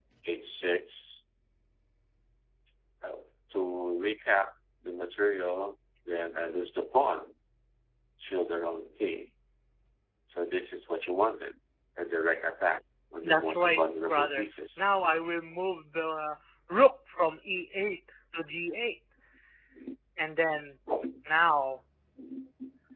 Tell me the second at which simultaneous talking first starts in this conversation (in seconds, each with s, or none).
13.2 s